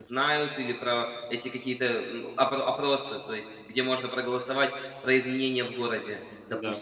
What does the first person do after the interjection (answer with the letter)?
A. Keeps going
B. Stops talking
A